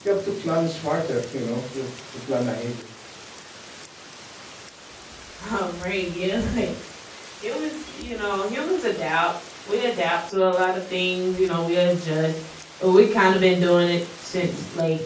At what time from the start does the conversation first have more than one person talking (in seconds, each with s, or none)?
none